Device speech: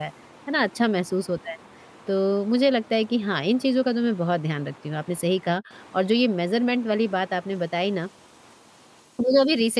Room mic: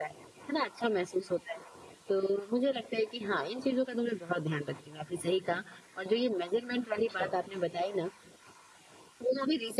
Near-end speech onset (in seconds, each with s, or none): 7.0 s